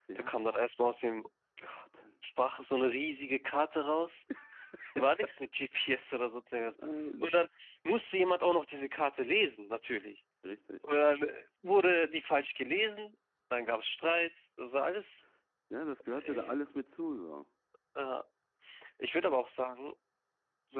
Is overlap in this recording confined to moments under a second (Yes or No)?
Yes